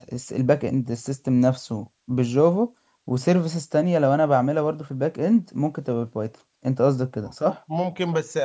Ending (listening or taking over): taking over